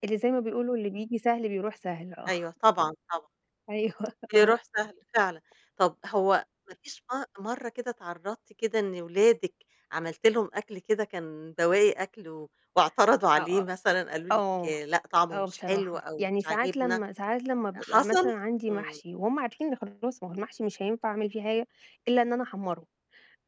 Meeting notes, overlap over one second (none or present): present